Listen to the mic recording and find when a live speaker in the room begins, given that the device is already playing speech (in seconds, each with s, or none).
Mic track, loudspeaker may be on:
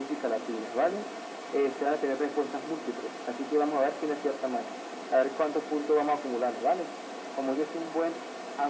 none